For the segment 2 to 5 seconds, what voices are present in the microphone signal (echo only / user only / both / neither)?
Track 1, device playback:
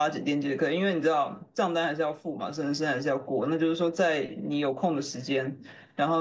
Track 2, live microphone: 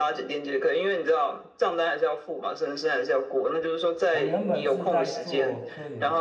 both